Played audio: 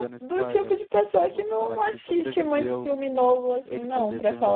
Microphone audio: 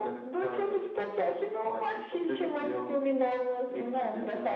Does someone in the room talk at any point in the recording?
No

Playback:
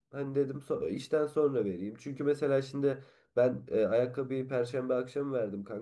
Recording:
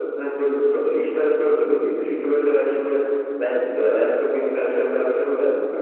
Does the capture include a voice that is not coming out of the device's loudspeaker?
No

